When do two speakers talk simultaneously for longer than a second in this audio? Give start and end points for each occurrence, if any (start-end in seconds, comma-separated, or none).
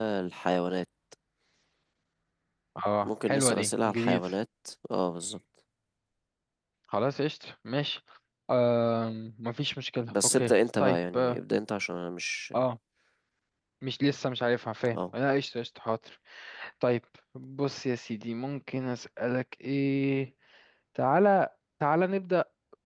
3.0-4.3, 10.1-11.4